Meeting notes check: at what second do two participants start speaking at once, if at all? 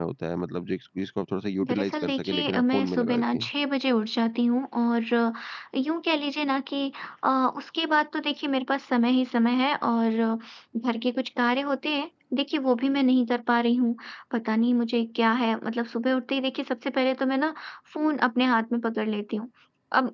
2 s

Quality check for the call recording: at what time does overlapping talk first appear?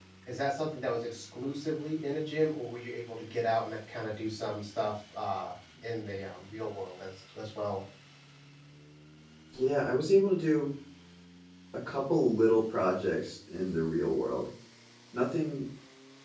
none

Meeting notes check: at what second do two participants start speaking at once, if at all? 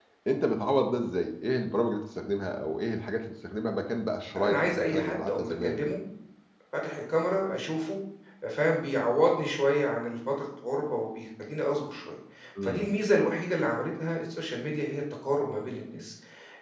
4 s

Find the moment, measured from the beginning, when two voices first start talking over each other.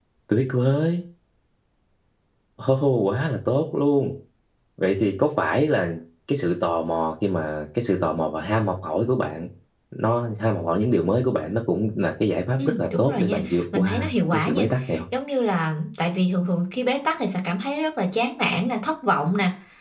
13 s

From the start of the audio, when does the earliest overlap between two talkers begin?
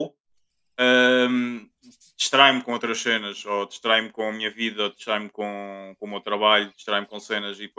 none

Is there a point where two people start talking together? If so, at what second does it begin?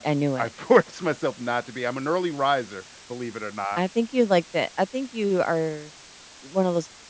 none

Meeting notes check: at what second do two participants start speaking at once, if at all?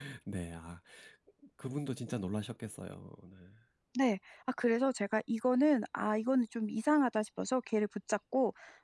none

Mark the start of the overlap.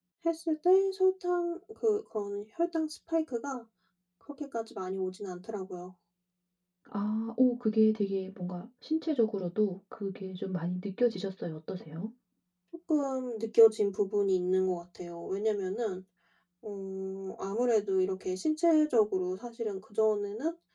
none

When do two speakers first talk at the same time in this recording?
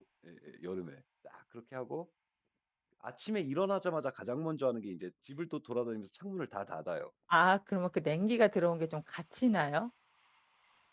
none

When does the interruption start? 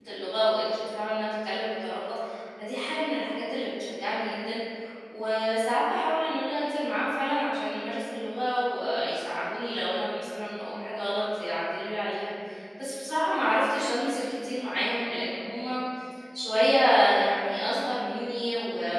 none

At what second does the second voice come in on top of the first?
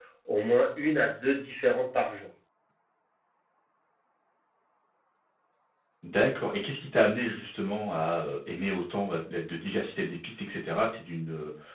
none

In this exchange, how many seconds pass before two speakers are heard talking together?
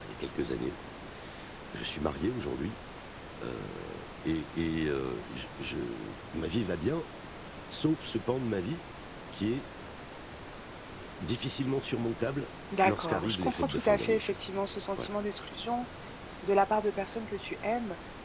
13 s

